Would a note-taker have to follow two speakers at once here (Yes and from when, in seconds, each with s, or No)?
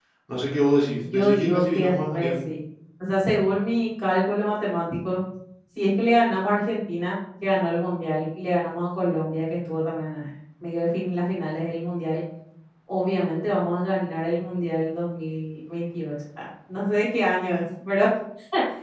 Yes, from 1.0 s